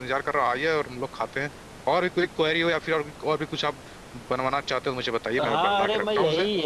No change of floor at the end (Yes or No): No